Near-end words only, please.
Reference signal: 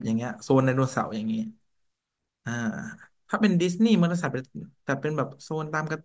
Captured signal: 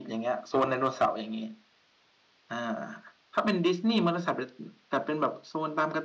none

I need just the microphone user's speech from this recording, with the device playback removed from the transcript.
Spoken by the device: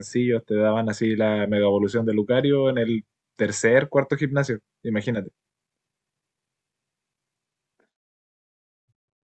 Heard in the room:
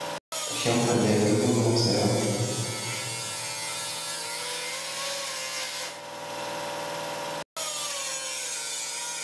Por ejemplo, el de aquí, ¿qué Pokémon será?

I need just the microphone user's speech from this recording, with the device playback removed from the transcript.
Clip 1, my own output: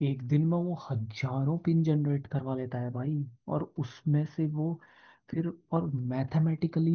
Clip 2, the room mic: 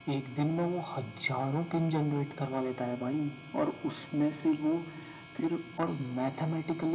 none

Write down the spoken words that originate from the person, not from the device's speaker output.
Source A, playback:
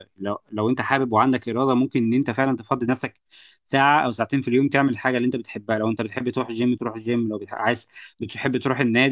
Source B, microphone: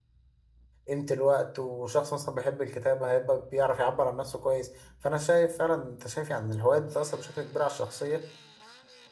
قيمة الوقت وشخص مثلا بيحب الكتابة هيبقى بيعرف يعبر عن نفسه كويس فأنا شايف فعلا أنت شايف يعني الهوايات بتأثر بشكل كبير على الشخصية

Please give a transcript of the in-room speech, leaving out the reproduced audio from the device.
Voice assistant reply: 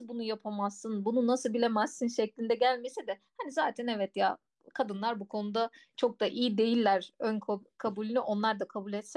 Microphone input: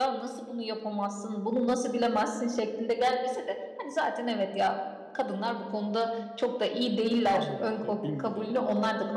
e, adımları, bilgileri.

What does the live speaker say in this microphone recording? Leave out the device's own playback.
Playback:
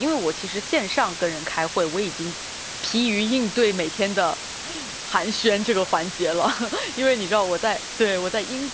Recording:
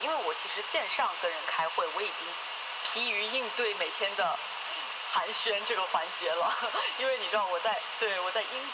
none

